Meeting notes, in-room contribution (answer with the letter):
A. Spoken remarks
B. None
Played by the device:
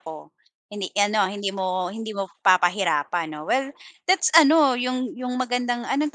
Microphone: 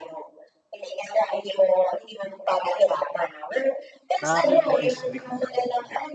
A